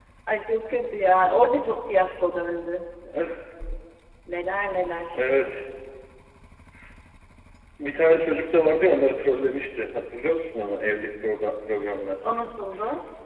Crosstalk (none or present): none